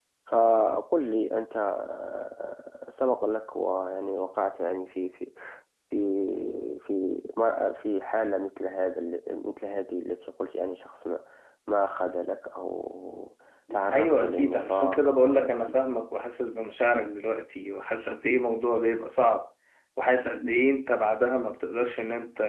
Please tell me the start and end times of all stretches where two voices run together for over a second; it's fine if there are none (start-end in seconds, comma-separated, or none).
13.9-15.6